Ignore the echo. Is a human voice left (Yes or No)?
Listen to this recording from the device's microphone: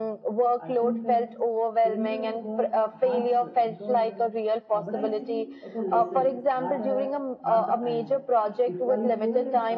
Yes